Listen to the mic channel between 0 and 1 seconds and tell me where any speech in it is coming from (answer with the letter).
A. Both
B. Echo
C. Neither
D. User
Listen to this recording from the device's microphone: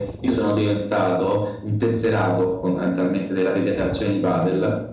B